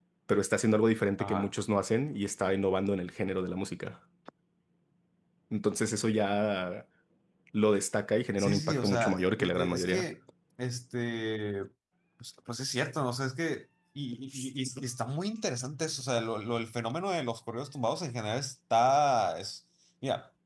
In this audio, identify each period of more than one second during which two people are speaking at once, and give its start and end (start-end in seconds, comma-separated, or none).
8.4-10.1